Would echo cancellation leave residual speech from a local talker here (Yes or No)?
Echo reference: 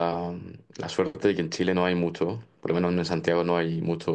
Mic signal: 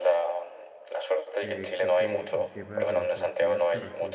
Yes